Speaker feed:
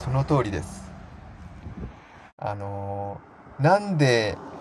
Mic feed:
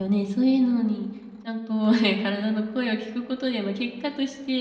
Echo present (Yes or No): No